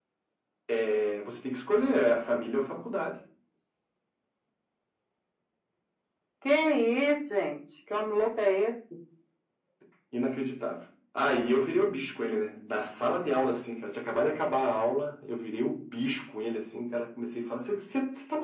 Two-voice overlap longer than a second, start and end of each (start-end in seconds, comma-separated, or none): none